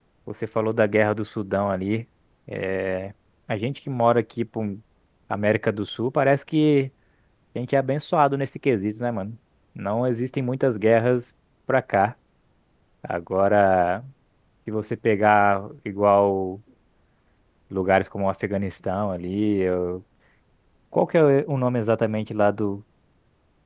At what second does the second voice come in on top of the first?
none

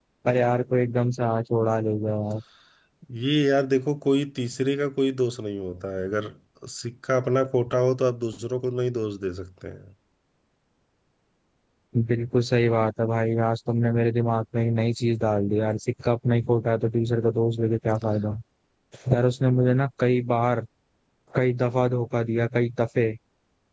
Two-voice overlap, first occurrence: none

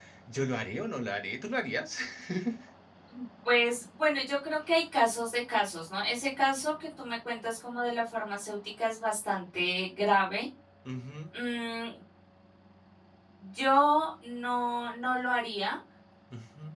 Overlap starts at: none

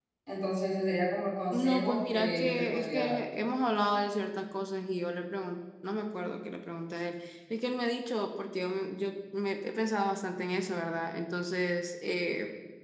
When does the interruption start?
1.5 s

